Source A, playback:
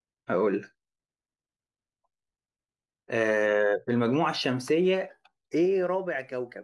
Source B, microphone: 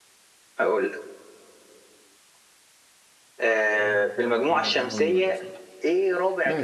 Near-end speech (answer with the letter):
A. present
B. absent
A